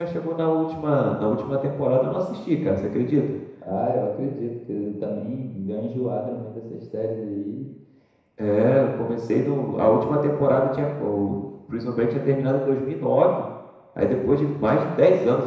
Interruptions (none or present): none